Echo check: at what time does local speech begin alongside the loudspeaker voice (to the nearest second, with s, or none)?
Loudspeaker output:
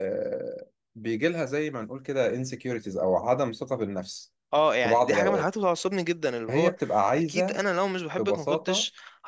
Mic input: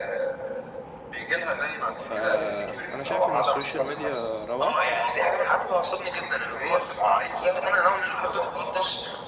2 s